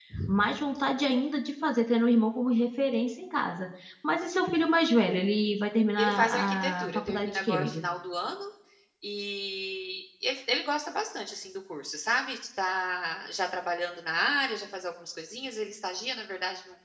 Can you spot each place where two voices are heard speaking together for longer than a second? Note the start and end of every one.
6.0-7.8

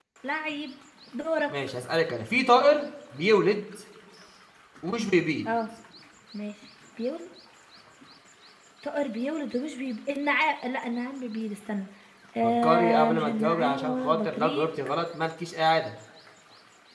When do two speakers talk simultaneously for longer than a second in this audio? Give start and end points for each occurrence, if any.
12.4-14.7

